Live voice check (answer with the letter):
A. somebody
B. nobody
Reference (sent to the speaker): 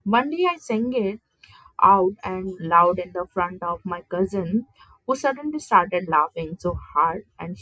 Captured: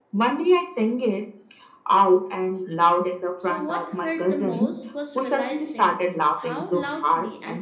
A